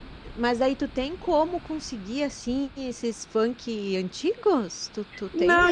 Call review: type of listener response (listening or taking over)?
taking over